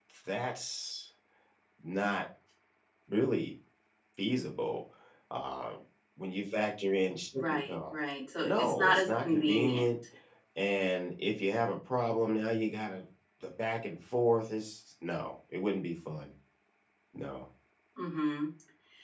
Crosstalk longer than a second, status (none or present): present